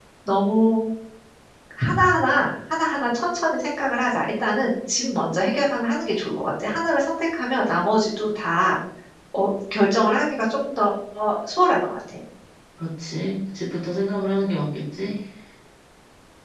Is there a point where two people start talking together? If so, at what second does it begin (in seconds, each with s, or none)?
none